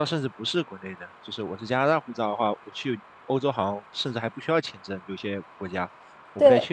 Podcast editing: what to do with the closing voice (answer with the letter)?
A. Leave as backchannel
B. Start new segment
A